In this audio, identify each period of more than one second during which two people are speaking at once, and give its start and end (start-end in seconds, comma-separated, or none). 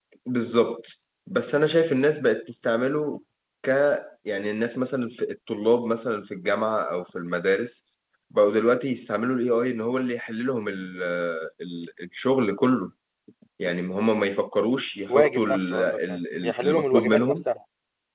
15.1-17.4